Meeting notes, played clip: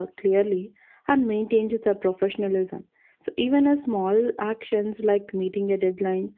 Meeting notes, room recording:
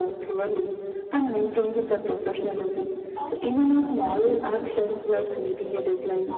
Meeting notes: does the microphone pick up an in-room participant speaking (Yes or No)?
Yes